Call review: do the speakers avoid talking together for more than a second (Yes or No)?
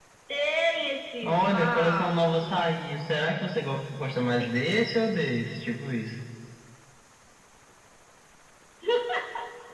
No